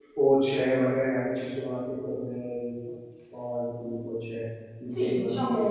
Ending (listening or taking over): taking over